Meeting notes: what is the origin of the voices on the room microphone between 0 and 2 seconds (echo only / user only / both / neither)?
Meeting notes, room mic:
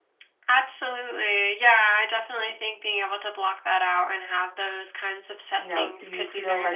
echo only